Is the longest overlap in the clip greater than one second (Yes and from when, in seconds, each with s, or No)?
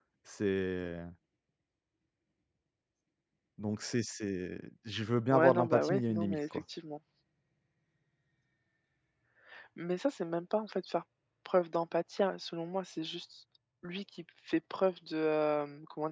Yes, from 5.3 s